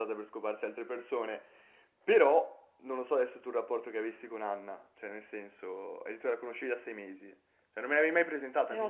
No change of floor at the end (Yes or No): Yes